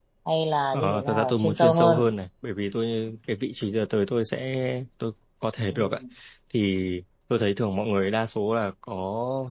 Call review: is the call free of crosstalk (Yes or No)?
No